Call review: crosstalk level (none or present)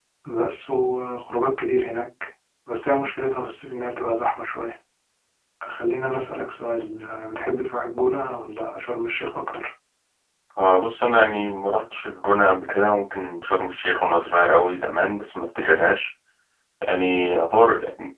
none